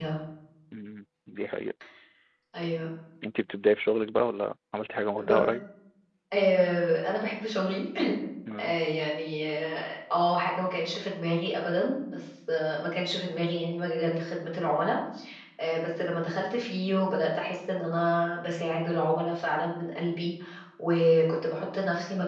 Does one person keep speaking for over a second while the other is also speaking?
No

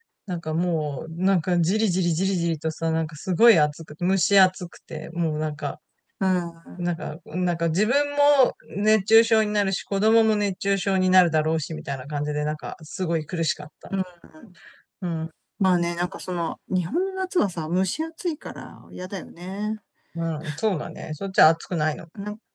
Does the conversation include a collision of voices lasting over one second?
No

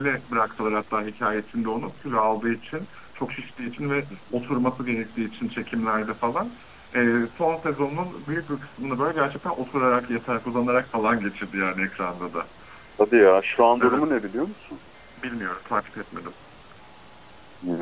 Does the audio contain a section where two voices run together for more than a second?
No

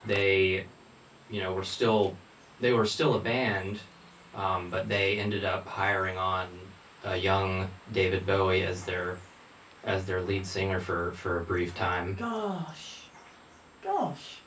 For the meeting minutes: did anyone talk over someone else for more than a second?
No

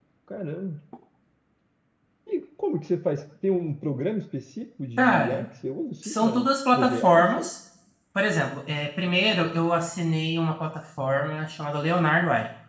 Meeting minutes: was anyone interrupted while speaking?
Yes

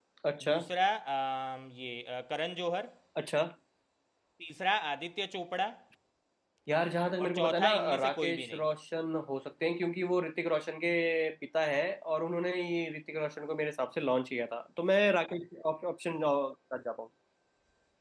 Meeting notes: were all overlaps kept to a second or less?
No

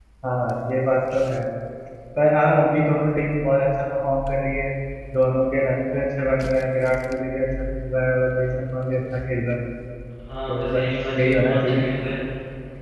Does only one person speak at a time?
No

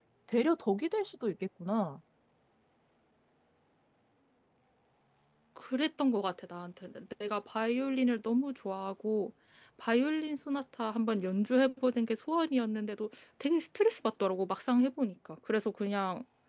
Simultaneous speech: No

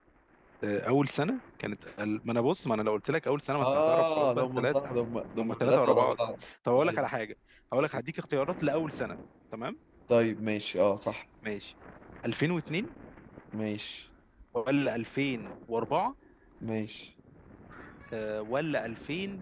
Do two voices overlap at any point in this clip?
Yes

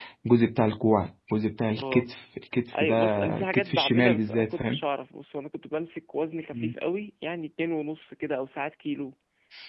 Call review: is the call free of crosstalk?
No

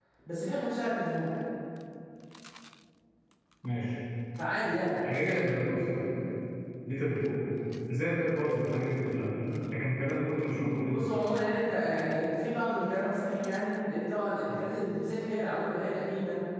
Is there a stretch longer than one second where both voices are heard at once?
No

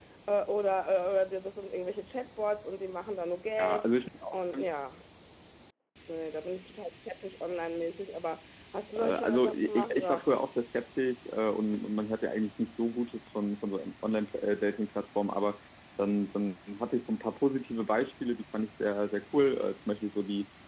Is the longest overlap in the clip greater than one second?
Yes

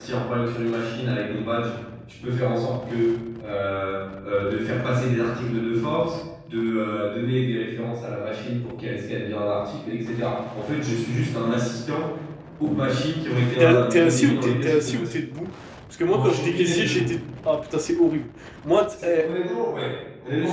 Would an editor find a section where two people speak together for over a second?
Yes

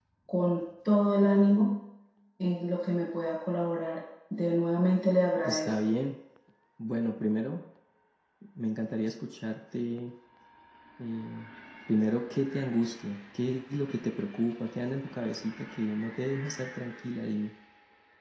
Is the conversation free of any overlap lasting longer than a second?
Yes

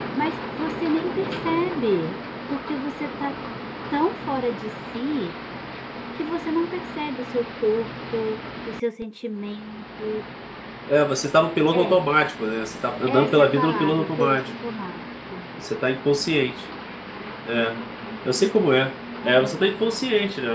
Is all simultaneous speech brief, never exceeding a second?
No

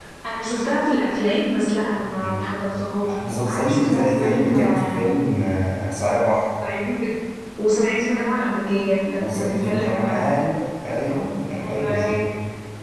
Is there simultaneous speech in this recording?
Yes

